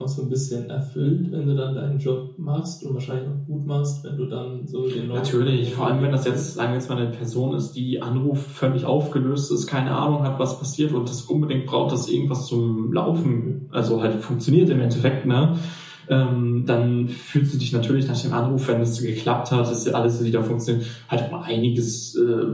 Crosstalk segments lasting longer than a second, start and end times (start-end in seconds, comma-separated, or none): 5.1-6.5